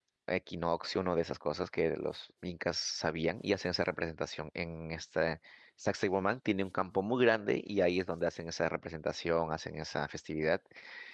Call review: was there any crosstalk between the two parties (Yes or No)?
No